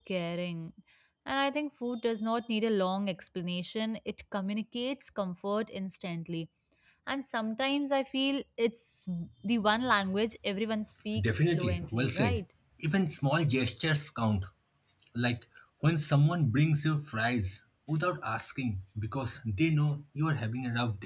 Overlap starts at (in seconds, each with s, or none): 11.2 s